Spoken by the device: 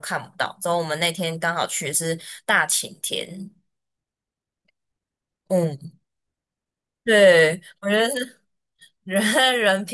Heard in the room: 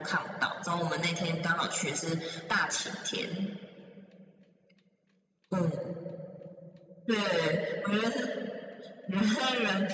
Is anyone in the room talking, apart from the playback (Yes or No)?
No